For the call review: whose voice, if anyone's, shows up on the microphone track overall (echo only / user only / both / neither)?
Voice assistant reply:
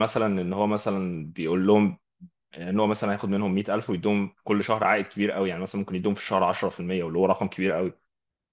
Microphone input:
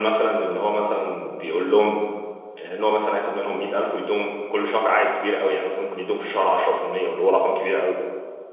echo only